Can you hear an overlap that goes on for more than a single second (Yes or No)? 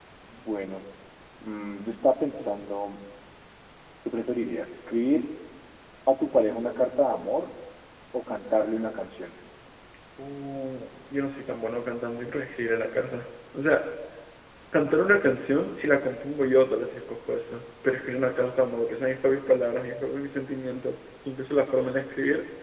No